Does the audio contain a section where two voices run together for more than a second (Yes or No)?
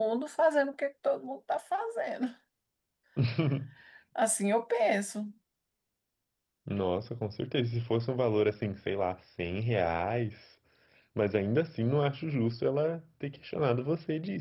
No